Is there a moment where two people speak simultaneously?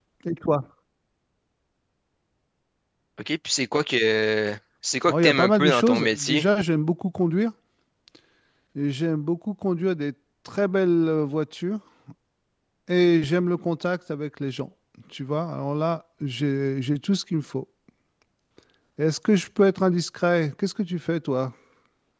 Yes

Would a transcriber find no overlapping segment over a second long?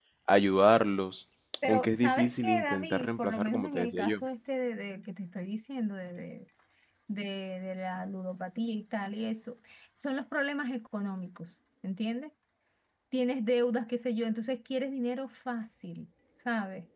No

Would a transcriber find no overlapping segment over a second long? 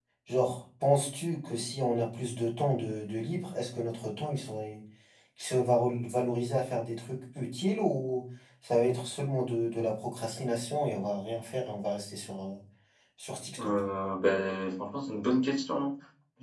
Yes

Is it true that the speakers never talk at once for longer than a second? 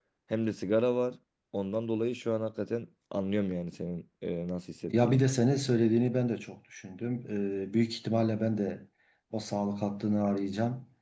Yes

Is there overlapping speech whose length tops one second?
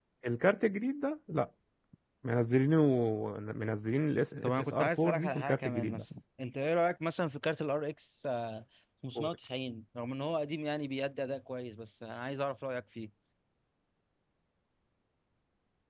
Yes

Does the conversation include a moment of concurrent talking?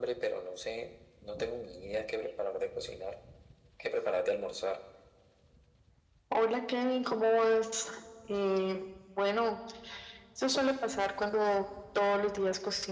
No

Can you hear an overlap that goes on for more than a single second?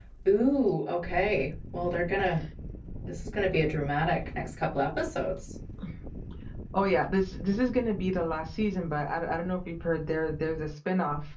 No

